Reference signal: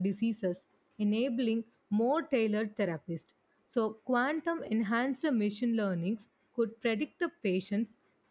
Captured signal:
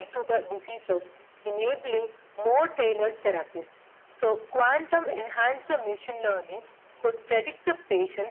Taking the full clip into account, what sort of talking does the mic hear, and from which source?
echo only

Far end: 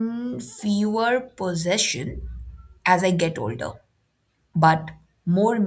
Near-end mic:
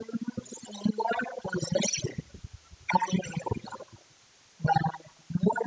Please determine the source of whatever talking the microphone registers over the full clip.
echo only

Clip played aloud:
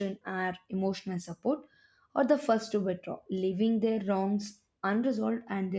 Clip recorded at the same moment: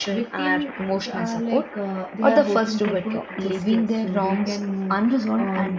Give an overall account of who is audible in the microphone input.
both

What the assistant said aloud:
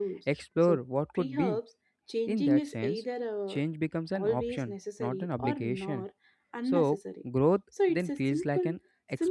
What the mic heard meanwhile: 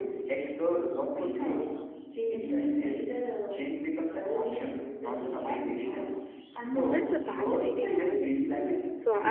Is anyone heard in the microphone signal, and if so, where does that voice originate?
both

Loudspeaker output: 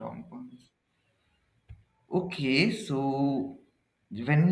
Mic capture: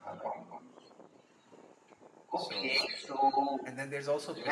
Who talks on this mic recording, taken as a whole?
both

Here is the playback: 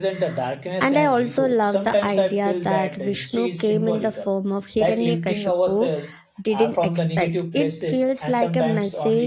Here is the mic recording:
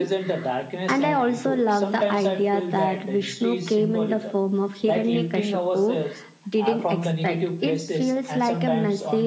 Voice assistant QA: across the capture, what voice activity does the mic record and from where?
echo only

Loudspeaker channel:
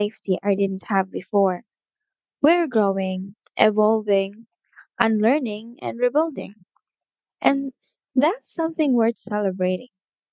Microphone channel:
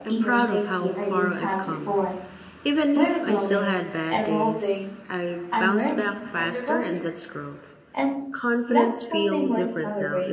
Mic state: both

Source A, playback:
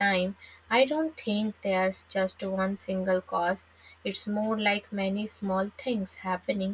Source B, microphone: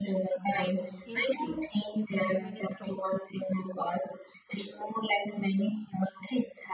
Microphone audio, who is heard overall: both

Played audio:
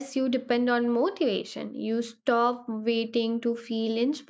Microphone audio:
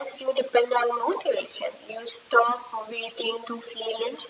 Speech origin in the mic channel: echo only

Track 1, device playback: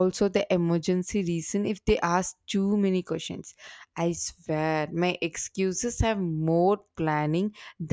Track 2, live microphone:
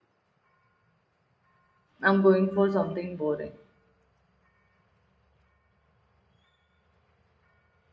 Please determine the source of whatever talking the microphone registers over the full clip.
user only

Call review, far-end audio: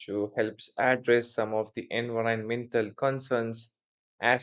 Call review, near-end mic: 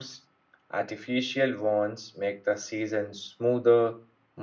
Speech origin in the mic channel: user only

